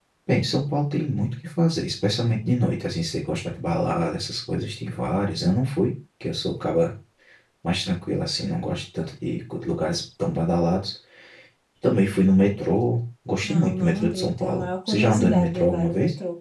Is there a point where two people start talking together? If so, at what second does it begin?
13.4 s

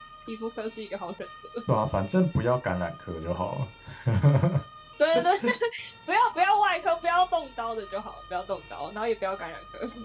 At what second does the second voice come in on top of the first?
none

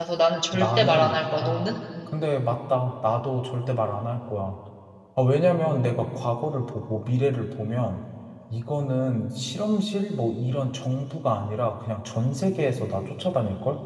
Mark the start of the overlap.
0.5 s

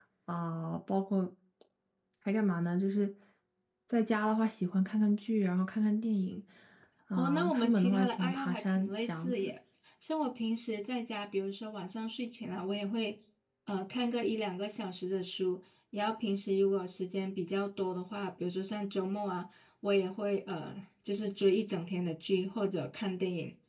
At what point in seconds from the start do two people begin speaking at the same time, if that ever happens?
7.2 s

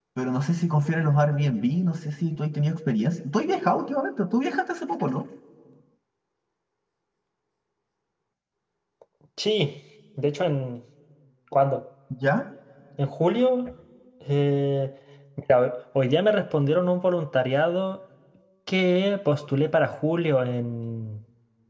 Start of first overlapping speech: none

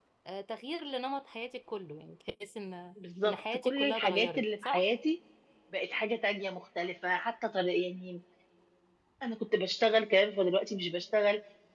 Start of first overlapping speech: 3.2 s

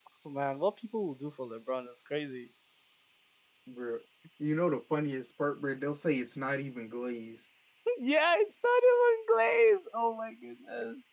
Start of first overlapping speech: none

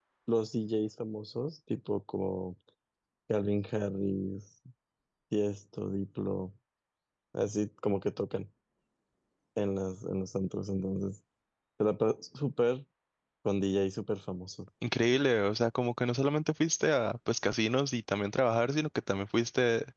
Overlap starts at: none

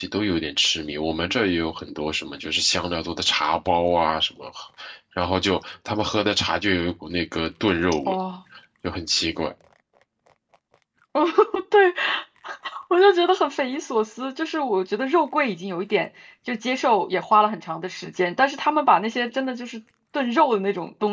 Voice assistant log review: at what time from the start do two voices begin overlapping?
none

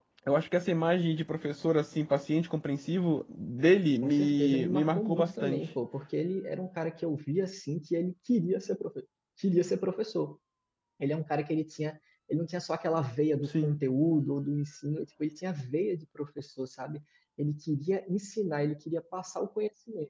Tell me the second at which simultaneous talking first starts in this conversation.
4.0 s

